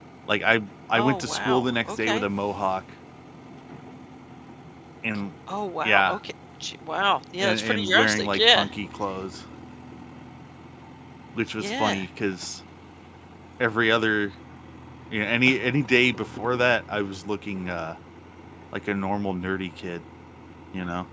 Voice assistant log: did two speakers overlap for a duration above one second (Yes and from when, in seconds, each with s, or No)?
Yes, from 0.9 s